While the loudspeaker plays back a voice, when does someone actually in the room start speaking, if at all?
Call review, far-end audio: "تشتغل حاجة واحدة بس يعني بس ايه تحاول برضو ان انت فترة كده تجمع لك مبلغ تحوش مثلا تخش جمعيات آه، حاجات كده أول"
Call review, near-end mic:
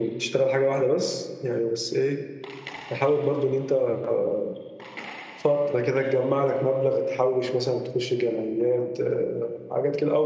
none

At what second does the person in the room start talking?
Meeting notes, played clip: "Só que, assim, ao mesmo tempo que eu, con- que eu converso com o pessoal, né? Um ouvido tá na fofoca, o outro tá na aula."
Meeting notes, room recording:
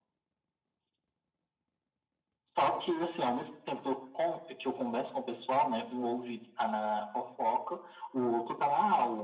none

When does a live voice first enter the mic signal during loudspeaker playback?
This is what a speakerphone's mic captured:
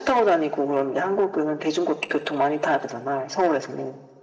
none

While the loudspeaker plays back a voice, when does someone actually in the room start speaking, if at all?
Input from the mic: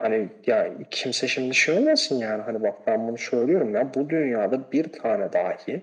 none

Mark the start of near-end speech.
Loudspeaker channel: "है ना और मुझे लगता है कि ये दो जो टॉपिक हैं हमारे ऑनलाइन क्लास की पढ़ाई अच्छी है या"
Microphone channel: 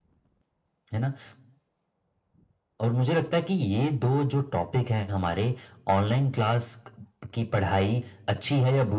none

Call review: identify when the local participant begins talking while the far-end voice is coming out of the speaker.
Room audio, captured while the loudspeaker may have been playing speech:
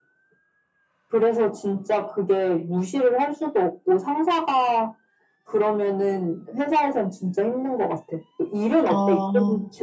8.9 s

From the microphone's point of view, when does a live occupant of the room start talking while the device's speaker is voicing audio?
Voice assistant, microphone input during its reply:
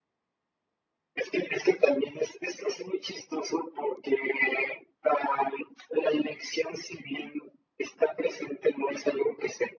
none

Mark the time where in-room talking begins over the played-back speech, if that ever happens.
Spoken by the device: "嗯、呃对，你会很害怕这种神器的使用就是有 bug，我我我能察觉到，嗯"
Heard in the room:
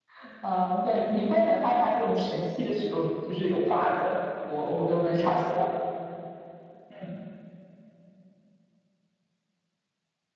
none

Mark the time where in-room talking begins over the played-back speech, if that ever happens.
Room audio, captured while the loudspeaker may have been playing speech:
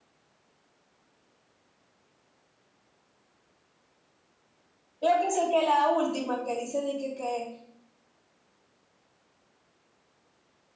5.0 s

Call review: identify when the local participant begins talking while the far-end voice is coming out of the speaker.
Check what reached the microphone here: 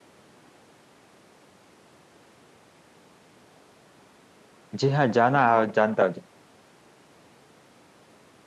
4.7 s

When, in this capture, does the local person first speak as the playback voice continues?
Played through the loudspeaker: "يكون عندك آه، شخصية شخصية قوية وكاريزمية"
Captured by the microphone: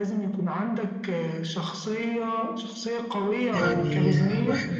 3.5 s

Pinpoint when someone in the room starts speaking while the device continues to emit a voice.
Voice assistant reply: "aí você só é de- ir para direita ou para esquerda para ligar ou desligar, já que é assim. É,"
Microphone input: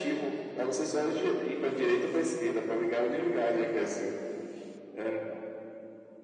none

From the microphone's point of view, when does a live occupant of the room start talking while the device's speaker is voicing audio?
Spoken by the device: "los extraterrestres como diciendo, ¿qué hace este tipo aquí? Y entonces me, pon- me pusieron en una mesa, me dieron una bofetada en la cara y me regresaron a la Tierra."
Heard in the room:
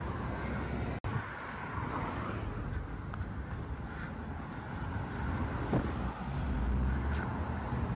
none

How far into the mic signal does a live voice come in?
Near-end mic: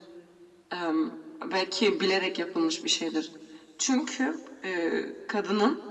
none

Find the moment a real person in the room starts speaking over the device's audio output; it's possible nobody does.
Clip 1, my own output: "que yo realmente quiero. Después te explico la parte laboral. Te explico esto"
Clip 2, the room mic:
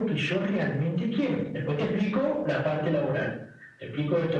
none

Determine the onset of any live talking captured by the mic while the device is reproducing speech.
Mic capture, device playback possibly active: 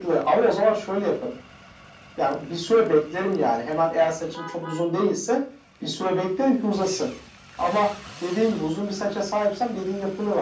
none

